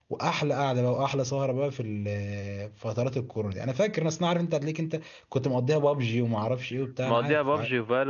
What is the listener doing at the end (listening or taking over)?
taking over